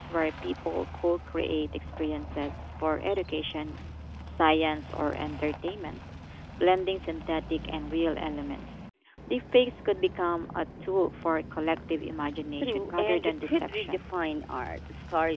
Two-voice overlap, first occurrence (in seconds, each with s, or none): 12.5 s